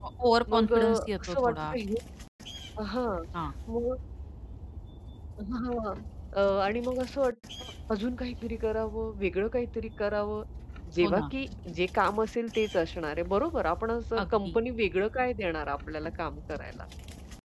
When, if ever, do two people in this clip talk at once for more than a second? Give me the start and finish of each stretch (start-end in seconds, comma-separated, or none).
0.5-1.8